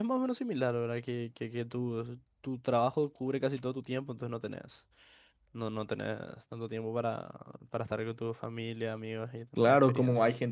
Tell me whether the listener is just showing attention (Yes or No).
No